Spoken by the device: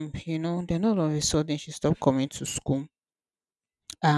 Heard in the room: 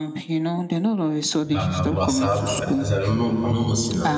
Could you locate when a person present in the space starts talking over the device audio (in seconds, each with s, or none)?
1.5 s